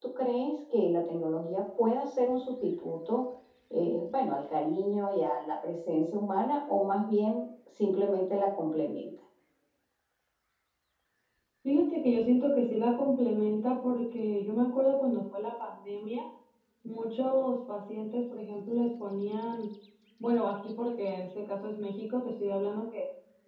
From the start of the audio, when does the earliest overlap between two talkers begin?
none

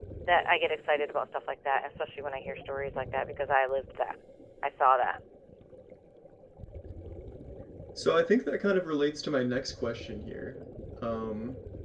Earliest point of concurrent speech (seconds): none

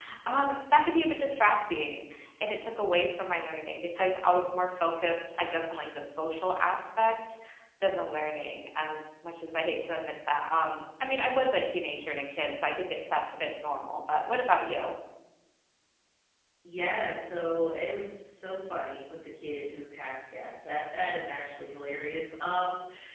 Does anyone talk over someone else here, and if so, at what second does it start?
none

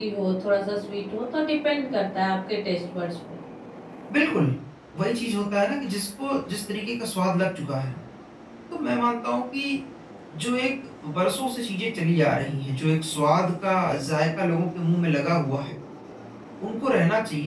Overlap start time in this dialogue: none

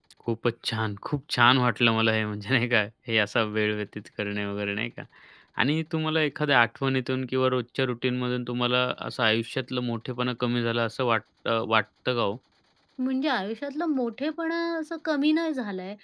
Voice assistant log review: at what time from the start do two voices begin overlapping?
none

